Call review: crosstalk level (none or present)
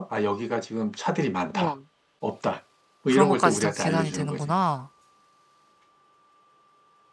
present